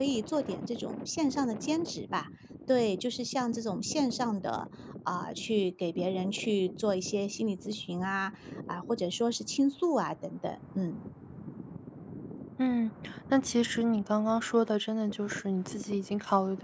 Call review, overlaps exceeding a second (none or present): none